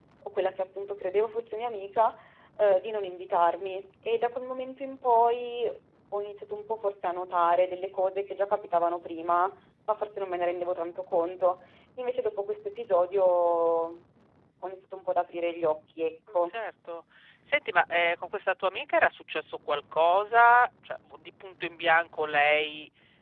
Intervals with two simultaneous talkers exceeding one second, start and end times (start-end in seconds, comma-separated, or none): none